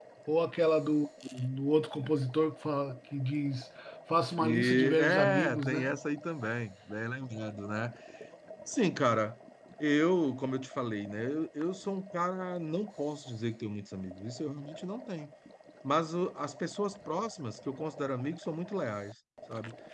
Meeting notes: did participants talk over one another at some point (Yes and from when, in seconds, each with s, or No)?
Yes, from 4.4 s